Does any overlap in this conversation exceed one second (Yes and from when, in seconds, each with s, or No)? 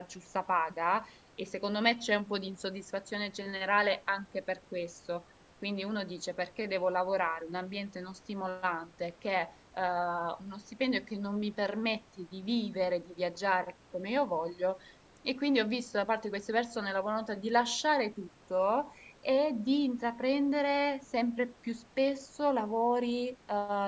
No